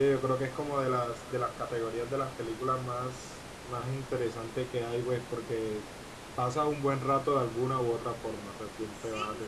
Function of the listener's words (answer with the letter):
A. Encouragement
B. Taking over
B